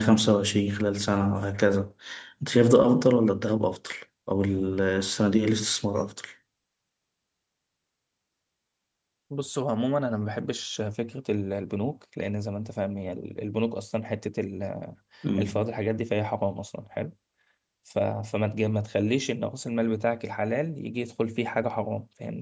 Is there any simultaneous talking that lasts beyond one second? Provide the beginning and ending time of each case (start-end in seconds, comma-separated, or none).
none